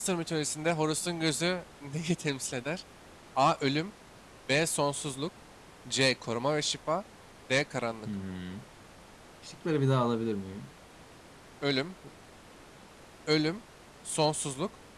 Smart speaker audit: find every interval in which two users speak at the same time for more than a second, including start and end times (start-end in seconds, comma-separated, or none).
none